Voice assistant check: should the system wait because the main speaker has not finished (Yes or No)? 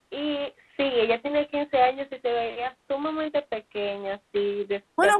No